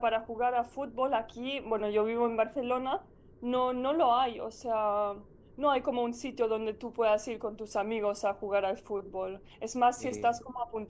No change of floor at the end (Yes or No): Yes